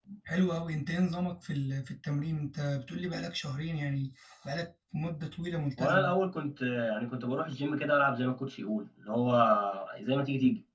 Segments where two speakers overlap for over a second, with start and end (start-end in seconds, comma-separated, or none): none